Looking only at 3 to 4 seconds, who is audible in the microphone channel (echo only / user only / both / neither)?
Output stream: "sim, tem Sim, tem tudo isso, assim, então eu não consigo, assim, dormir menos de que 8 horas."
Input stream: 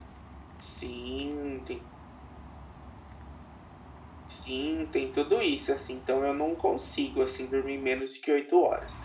neither